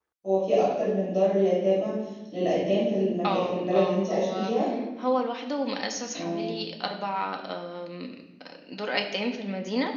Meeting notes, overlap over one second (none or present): present